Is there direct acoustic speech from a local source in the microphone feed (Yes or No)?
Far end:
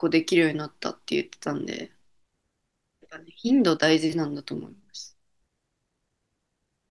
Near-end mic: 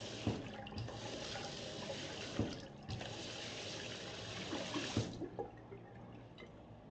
No